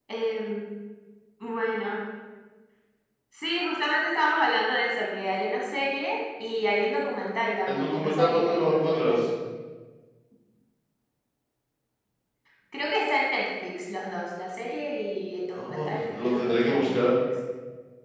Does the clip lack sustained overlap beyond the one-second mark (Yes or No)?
No